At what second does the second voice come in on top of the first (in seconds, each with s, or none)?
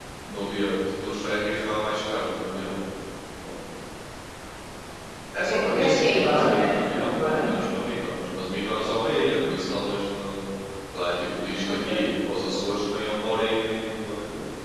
5.5 s